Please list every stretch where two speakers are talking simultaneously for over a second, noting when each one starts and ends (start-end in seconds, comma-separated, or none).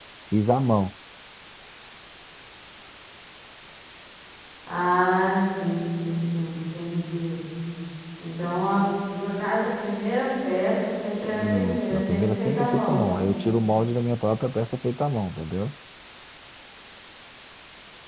11.2-13.1